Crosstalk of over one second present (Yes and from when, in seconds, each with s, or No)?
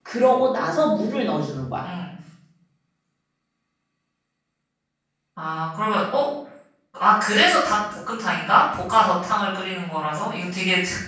No